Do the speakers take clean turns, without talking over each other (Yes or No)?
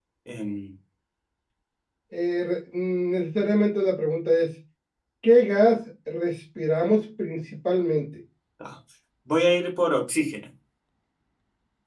Yes